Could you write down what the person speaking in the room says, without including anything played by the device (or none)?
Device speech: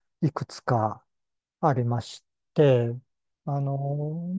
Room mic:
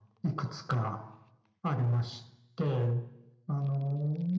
none